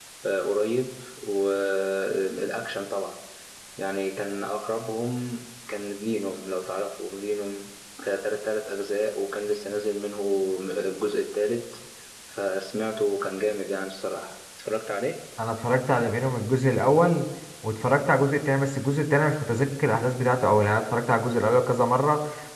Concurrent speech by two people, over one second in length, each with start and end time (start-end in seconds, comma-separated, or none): none